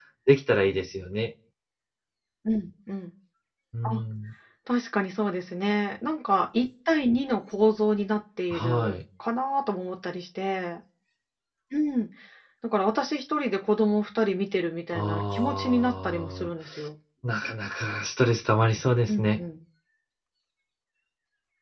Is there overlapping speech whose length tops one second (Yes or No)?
Yes